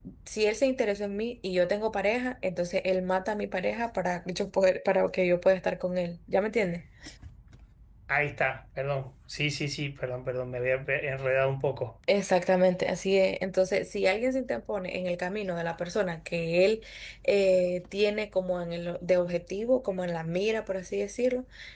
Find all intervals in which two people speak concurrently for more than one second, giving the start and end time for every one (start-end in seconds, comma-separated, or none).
none